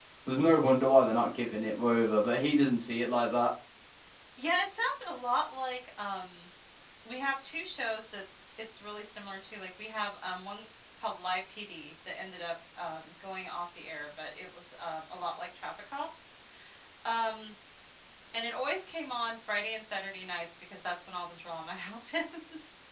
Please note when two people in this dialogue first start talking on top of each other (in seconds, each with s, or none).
none